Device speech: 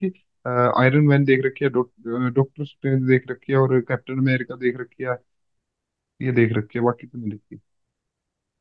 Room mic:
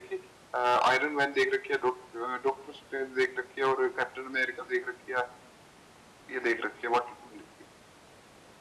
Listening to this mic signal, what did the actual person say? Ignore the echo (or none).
none